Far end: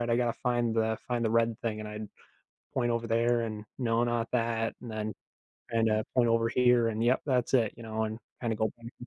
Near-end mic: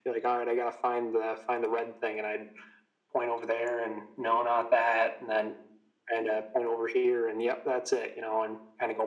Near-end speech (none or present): none